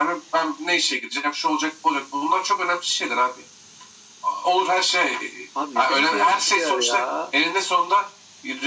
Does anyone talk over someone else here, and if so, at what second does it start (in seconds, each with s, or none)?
5.5 s